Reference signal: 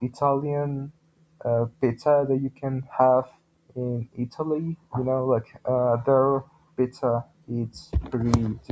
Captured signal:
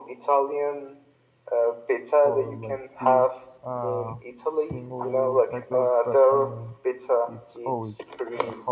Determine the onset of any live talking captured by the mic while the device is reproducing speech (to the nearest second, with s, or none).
2 s